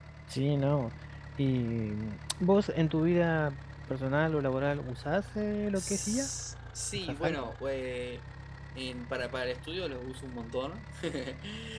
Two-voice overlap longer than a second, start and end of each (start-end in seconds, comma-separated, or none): none